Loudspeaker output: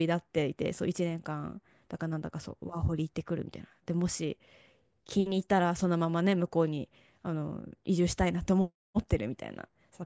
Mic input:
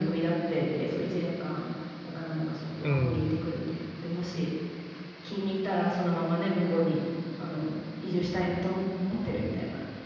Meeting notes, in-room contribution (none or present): present